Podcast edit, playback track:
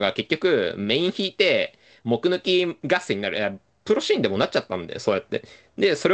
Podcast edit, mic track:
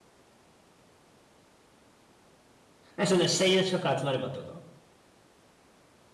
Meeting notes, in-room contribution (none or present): present